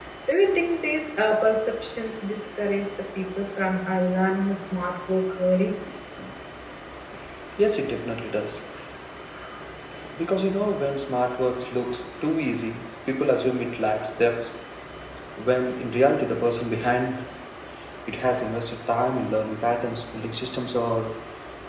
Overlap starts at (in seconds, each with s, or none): none